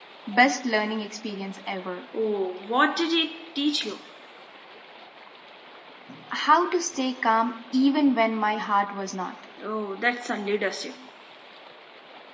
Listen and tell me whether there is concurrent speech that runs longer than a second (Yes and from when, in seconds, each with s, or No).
No